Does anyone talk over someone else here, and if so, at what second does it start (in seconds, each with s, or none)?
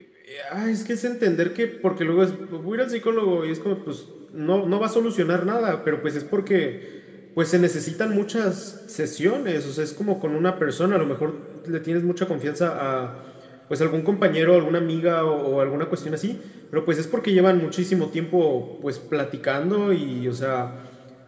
none